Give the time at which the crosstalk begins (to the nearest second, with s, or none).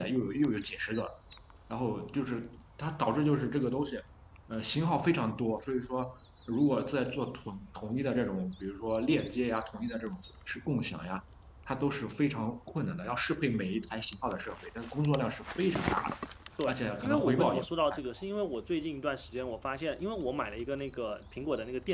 17 s